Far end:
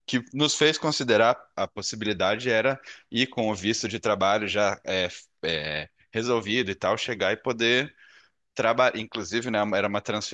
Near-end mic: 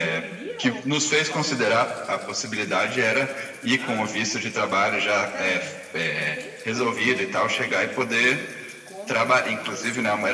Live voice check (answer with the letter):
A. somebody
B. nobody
A